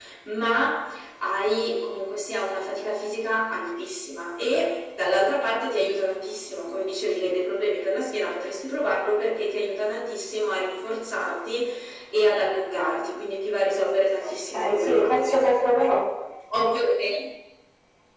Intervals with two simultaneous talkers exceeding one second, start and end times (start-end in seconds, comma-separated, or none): 14.2-15.5